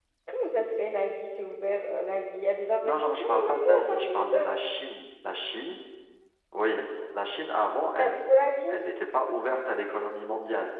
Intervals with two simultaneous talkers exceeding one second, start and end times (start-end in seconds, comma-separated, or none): 2.8-4.4